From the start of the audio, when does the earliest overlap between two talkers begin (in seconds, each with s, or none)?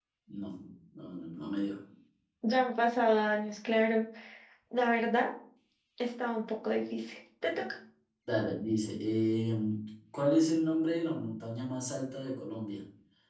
none